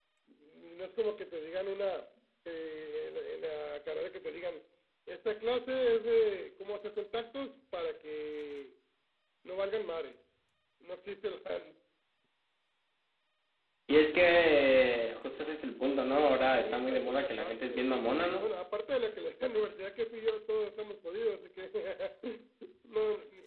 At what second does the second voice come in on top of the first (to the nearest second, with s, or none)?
17 s